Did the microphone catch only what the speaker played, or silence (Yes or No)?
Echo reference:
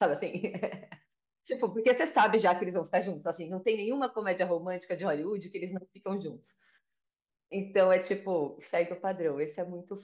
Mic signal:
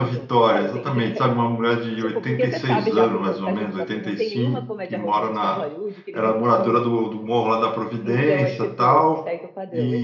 No